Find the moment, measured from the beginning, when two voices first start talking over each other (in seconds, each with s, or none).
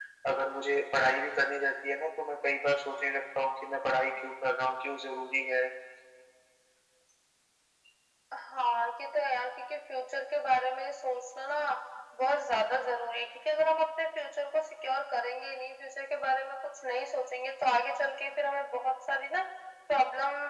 none